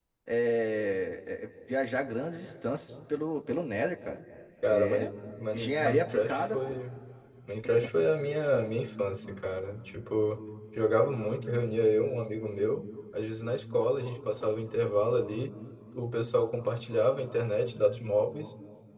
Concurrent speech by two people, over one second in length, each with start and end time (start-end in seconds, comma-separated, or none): 5.5-6.8